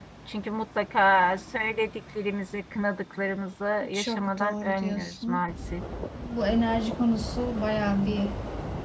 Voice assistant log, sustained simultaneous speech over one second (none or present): present